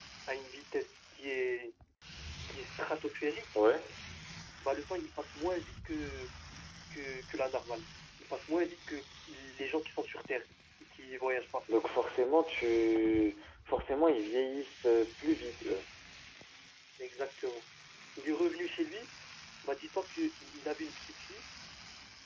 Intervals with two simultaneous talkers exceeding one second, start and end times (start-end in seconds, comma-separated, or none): none